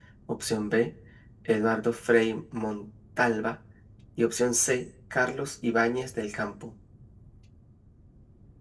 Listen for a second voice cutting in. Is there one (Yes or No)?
No